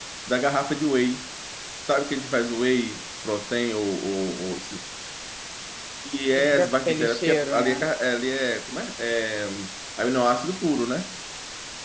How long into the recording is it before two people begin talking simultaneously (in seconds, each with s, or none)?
6.3 s